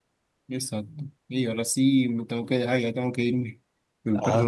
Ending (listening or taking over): listening